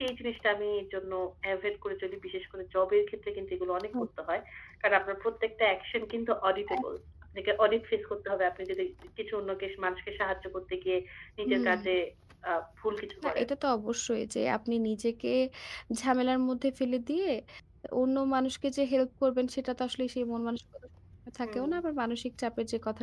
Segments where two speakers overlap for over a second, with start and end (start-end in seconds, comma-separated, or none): none